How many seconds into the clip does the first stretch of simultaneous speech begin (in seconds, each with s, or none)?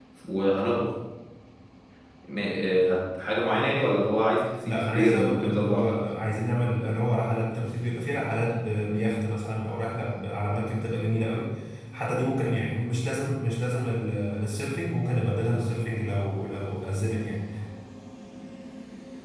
4.7 s